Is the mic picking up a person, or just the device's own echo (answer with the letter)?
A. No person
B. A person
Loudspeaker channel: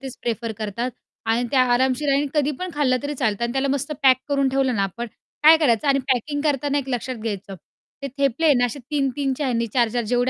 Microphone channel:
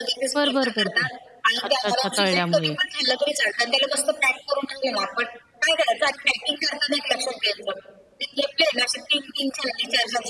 B